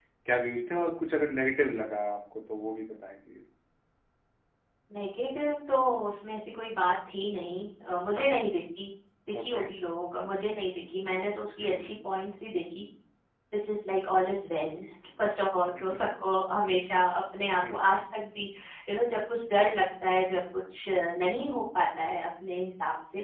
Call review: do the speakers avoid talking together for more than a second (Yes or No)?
Yes